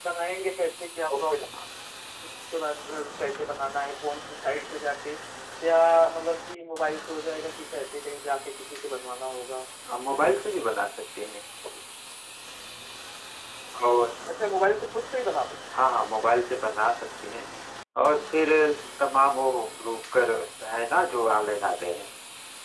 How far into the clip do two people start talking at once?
none

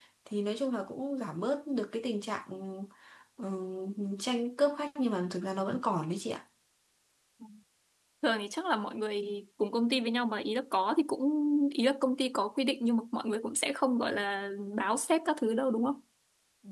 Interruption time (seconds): none

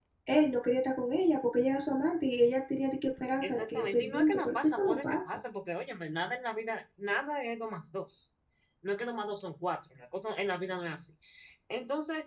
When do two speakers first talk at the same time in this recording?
3 s

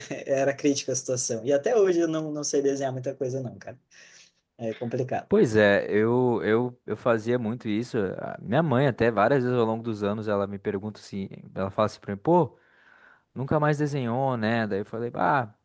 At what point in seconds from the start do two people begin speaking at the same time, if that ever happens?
none

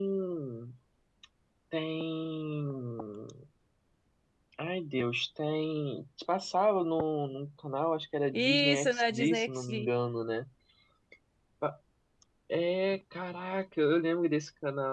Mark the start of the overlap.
8 s

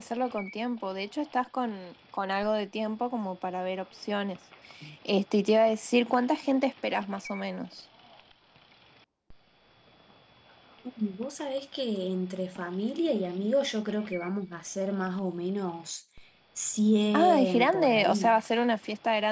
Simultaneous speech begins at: 17 s

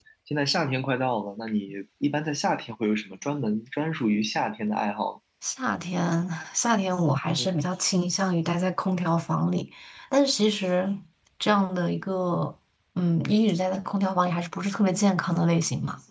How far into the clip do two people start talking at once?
none

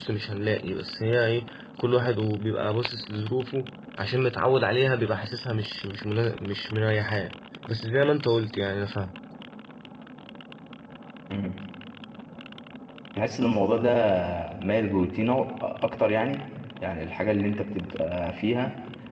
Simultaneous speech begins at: none

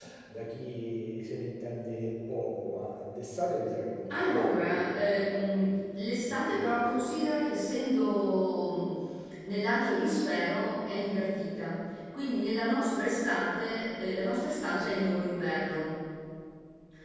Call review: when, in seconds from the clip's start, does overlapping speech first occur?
4 s

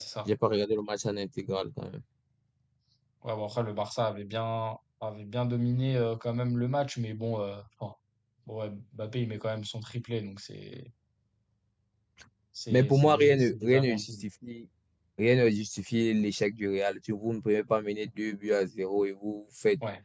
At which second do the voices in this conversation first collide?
13 s

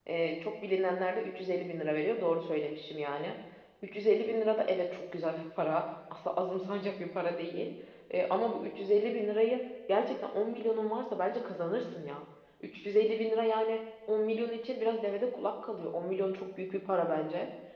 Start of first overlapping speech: none

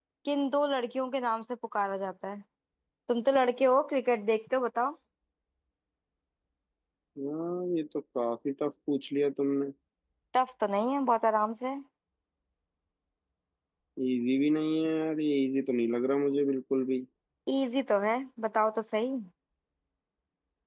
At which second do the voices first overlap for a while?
none

